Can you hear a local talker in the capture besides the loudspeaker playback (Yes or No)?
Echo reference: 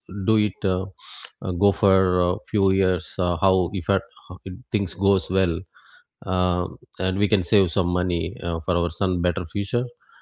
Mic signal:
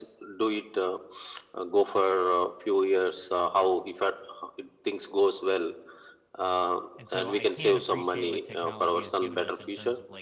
Yes